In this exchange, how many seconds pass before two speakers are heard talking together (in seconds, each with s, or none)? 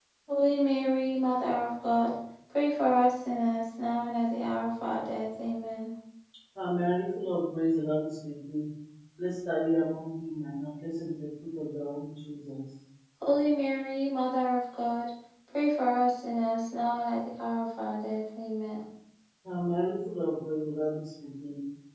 none